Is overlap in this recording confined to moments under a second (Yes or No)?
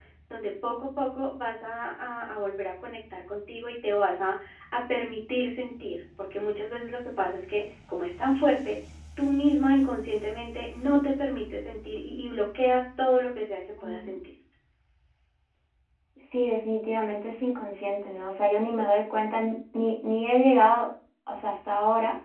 Yes